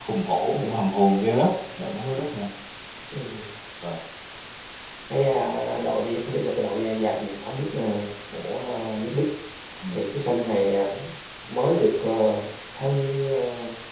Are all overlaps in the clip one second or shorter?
Yes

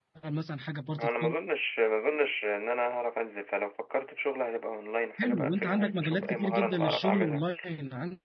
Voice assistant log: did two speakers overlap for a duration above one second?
Yes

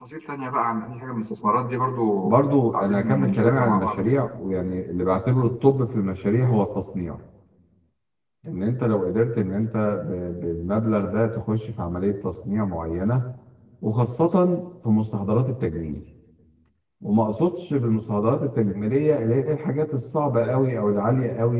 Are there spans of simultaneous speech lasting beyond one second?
Yes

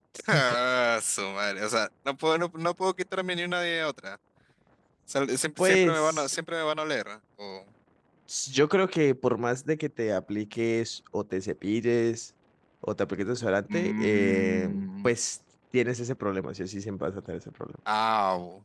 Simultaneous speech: Yes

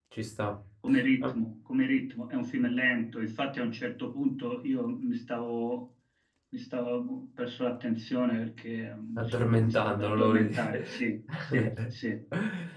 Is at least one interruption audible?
Yes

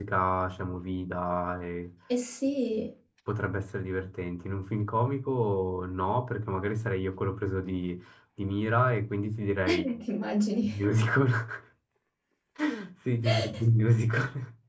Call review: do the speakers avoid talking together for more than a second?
Yes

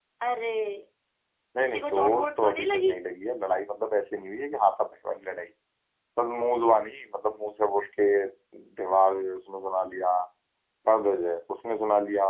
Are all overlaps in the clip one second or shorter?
No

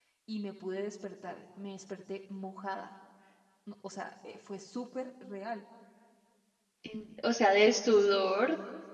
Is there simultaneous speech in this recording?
No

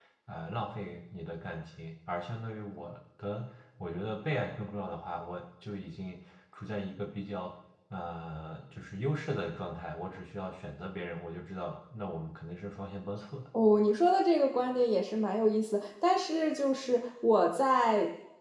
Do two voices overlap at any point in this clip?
No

